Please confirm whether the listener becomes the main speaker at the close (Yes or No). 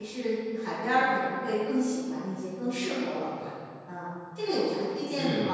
Yes